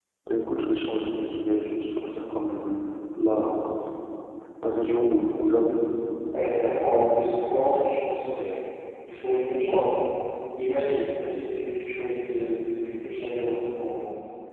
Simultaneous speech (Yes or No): No